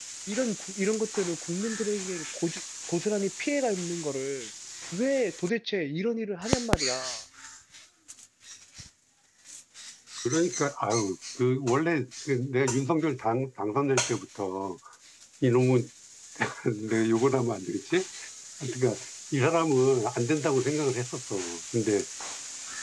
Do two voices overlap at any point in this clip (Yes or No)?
No